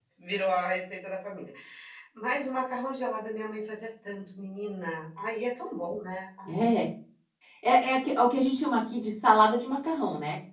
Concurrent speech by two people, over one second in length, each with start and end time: none

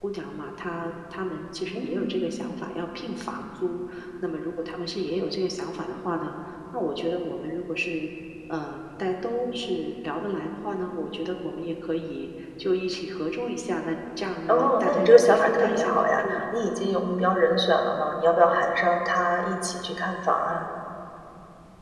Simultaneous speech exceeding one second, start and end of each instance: 14.5-16.4

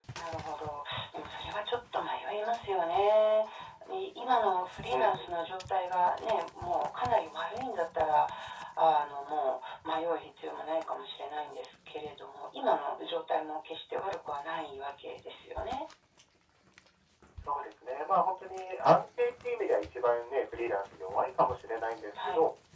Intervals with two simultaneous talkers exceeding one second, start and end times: none

